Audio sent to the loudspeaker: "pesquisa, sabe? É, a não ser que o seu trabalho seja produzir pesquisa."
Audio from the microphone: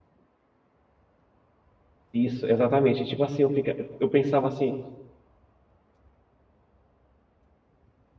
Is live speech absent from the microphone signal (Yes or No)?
No